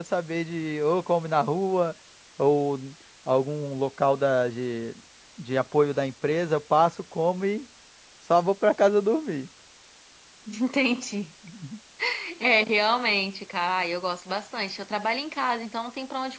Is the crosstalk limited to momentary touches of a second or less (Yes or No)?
Yes